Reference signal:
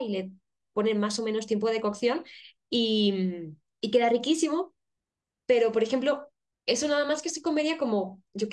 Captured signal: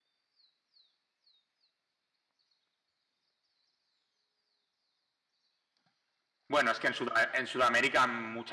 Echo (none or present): none